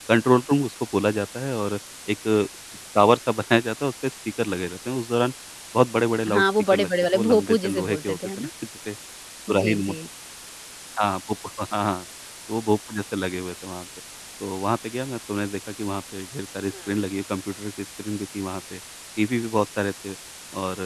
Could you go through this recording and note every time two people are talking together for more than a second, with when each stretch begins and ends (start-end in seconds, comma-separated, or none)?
6.3-8.5